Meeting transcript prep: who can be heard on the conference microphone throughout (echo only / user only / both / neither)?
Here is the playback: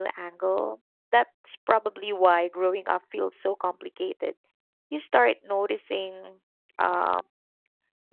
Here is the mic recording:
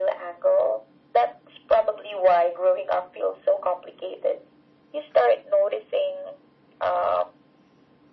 echo only